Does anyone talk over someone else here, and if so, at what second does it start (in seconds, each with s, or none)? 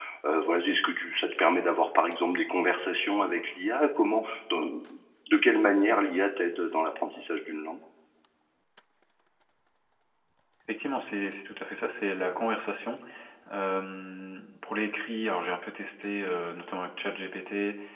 none